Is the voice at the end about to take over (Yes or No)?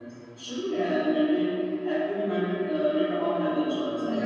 Yes